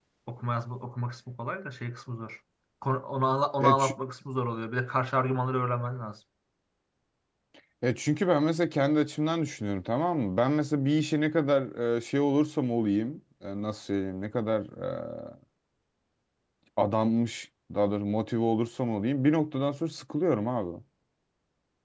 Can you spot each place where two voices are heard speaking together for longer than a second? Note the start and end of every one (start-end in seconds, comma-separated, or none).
none